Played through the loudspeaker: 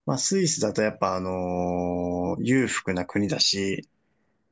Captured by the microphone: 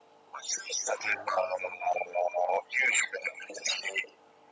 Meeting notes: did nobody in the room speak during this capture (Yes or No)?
No